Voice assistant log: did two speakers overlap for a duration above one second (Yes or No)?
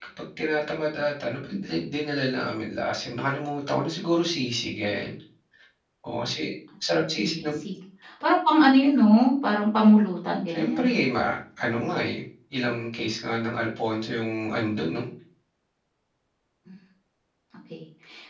No